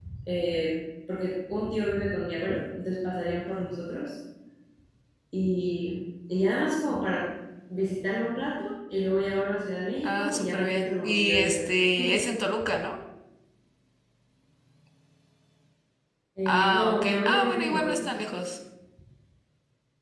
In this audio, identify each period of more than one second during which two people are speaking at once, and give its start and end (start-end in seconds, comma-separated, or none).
10.0-11.8, 16.5-18.1